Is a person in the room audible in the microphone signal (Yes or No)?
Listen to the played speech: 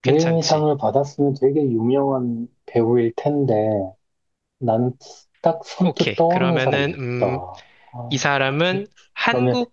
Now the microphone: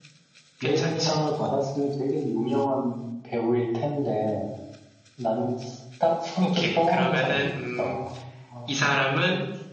No